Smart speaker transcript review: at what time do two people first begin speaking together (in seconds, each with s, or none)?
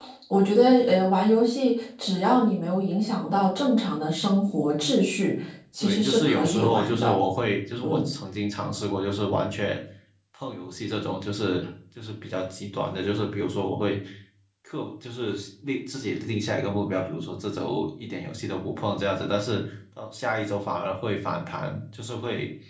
5.8 s